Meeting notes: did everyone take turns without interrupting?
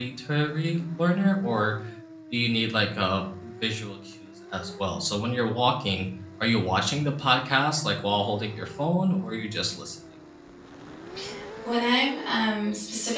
Yes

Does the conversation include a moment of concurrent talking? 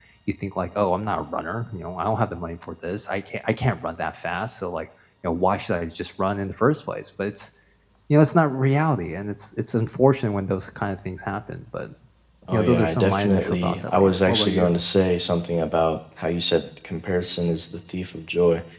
Yes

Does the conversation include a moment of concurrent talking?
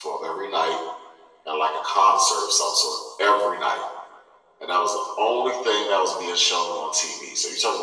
No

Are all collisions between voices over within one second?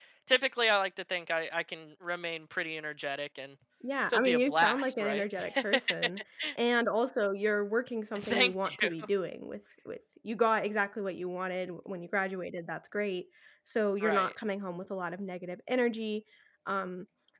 No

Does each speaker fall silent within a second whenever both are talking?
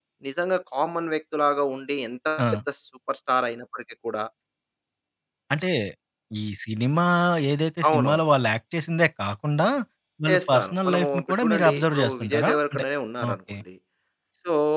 No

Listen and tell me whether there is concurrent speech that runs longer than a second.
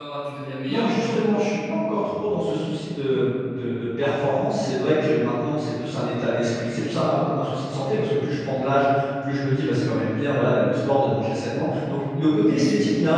No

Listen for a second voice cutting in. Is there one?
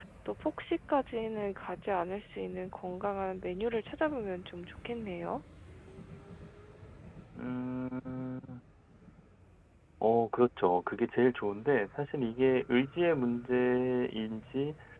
No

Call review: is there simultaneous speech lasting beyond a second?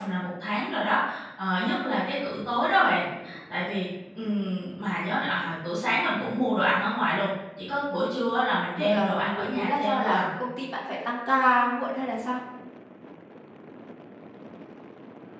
Yes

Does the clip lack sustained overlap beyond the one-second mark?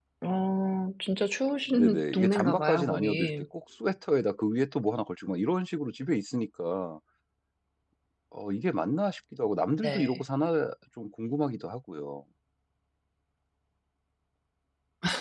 No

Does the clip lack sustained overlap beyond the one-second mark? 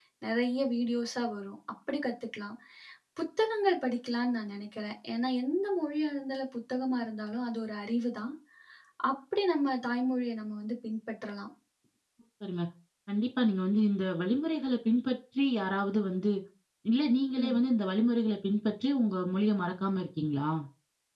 Yes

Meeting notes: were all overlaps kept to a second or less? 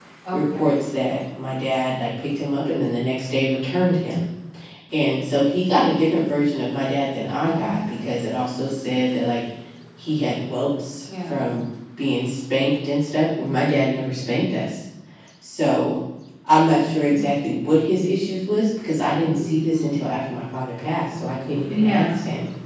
Yes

